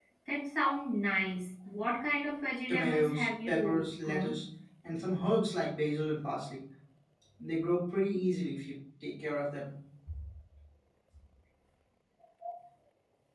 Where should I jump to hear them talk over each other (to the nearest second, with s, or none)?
3 s